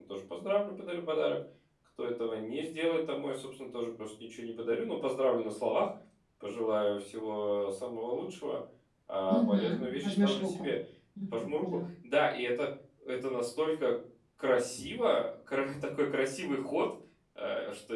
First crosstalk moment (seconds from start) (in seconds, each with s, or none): 9.3 s